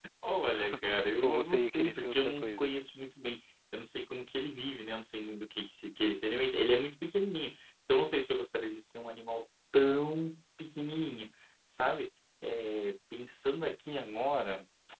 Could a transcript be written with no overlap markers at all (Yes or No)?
No